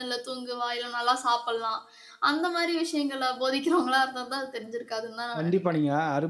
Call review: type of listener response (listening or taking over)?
taking over